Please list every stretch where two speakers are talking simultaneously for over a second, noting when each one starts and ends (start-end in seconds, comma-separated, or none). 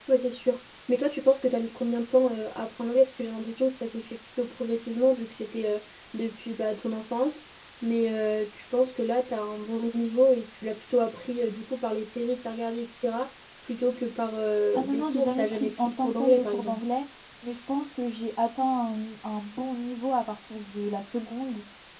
14.8-16.8